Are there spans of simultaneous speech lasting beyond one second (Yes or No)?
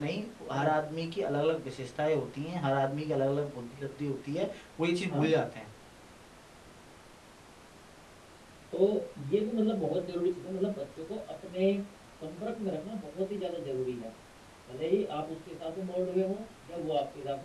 No